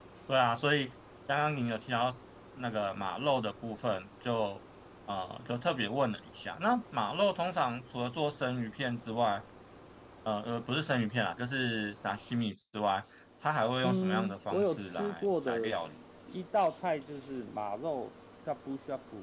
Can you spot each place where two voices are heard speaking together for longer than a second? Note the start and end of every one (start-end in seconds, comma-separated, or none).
13.8-15.7